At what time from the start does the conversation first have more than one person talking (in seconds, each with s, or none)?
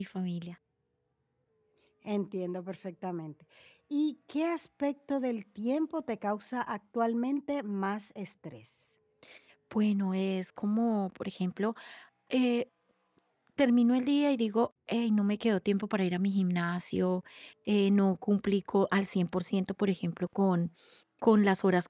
none